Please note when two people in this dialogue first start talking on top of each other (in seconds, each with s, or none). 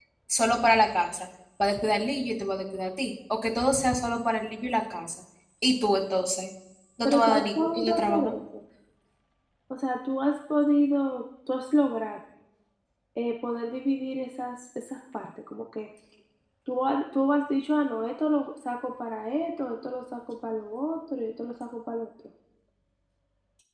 7.0 s